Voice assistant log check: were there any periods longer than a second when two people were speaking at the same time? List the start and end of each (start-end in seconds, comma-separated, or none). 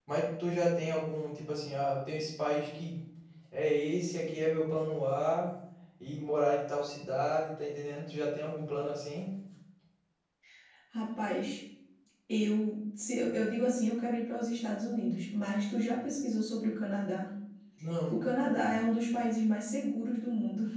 none